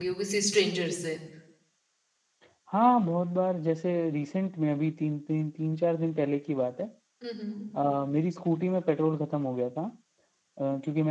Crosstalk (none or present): none